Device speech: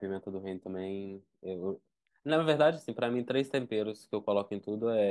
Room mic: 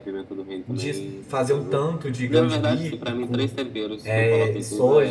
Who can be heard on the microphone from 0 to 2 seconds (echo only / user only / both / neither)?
both